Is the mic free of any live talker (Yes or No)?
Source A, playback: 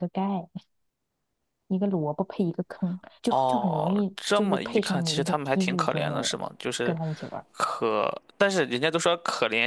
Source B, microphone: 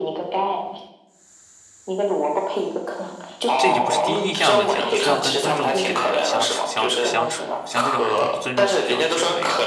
No